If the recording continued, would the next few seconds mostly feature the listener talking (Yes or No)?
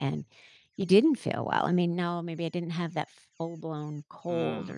No